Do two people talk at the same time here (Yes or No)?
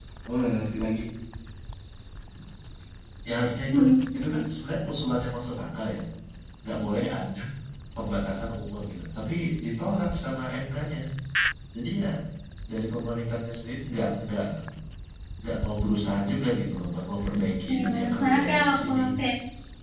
Yes